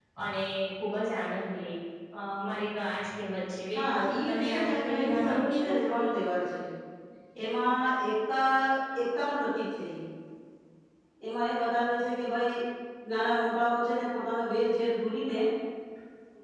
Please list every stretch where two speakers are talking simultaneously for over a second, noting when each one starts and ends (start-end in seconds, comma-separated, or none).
4.3-5.7